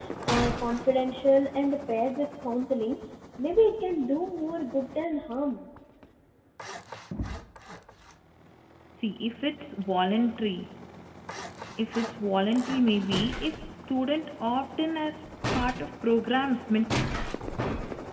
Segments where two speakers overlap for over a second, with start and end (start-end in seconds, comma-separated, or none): none